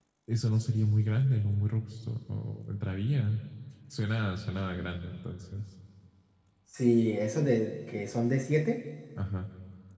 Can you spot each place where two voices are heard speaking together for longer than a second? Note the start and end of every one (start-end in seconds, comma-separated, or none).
none